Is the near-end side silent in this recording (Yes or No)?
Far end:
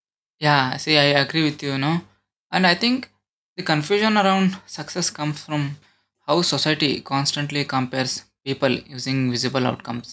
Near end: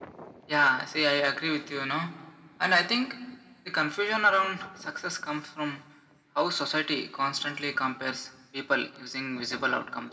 Yes